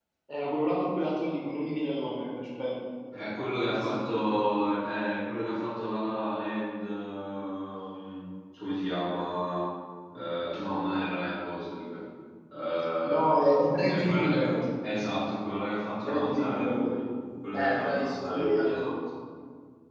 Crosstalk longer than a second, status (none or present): present